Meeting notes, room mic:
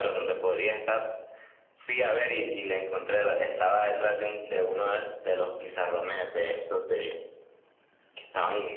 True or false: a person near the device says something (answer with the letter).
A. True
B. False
B